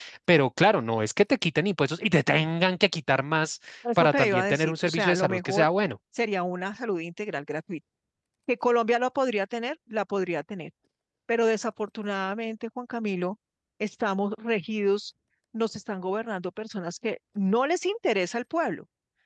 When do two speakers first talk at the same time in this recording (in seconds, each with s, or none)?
3.8 s